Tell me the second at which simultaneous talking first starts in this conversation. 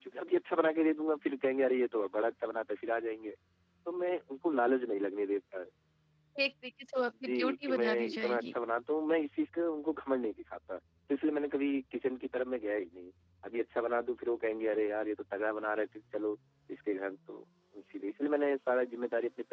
7.1 s

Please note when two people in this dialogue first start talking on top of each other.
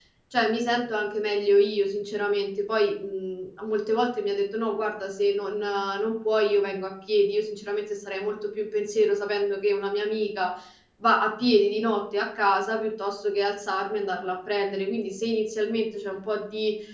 none

